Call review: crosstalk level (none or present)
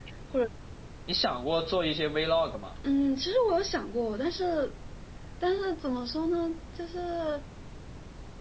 none